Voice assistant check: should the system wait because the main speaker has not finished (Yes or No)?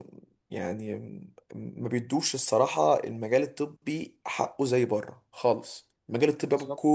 Yes